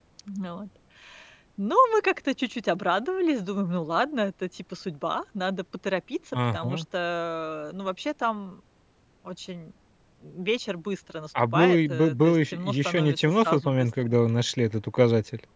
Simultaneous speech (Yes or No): Yes